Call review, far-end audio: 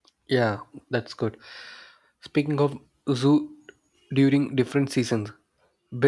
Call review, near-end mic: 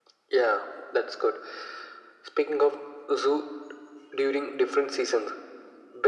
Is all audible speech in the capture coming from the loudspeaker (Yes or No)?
Yes